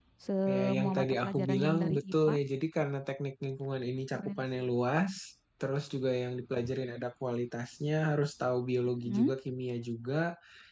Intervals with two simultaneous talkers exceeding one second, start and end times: 0.5-2.3

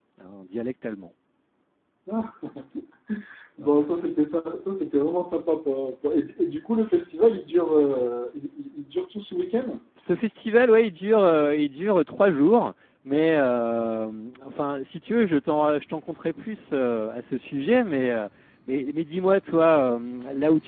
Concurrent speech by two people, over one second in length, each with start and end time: none

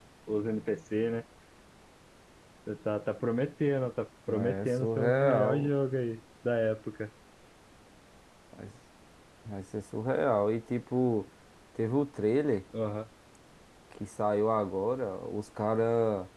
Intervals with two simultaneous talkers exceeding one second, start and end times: 4.3-5.7

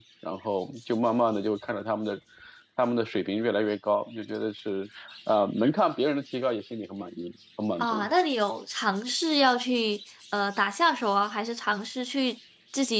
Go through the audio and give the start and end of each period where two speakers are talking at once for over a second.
none

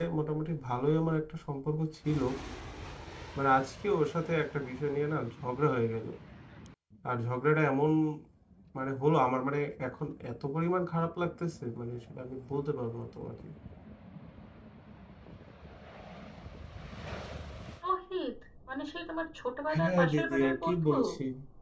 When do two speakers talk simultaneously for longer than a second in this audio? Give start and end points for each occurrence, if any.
19.7-20.9

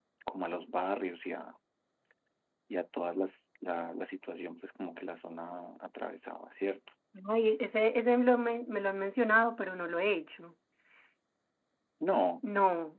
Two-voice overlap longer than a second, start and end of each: none

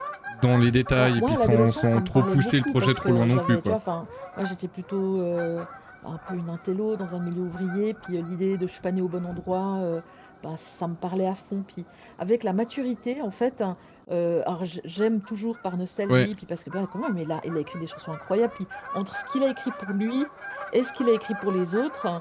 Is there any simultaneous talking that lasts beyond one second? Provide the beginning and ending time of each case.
1.0-3.8

